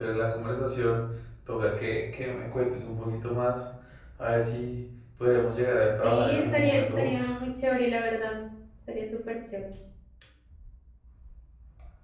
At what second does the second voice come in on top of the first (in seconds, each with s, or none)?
6.0 s